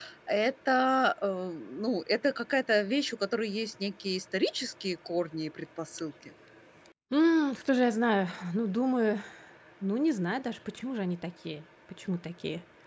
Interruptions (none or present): none